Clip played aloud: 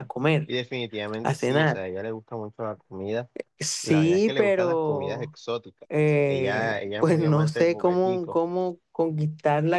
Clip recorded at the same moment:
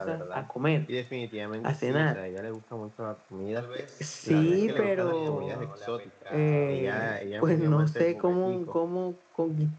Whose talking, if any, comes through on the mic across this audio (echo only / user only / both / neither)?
both